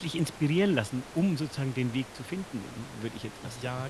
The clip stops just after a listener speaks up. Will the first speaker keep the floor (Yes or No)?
No